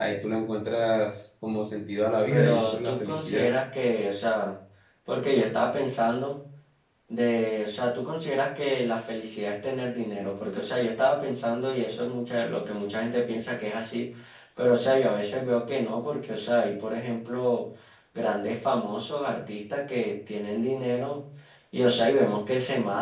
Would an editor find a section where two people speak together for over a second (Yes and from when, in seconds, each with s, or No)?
Yes, from 2.3 s